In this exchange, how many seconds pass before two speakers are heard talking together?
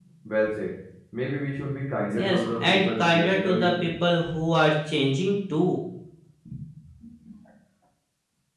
2.1 s

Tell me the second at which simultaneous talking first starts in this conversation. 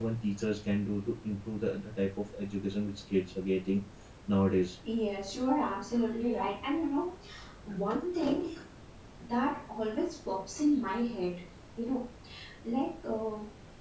none

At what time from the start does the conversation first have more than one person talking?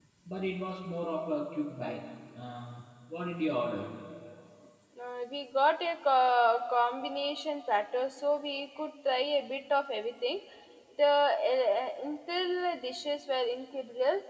none

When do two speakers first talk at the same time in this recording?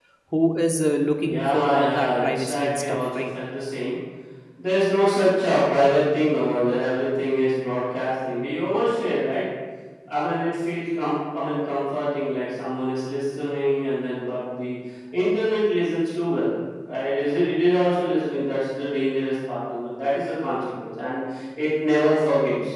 1.3 s

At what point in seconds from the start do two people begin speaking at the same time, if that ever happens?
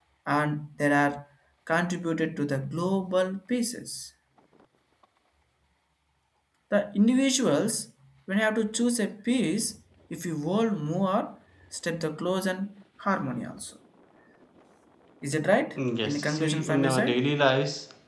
15.8 s

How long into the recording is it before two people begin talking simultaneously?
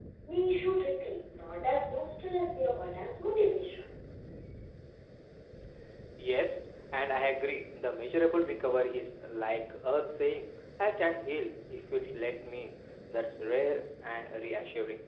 none

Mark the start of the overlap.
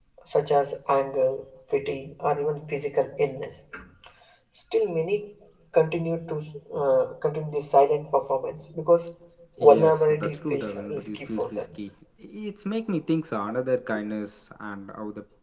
9.6 s

